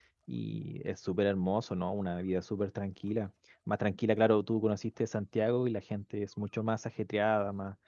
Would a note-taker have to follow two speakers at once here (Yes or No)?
No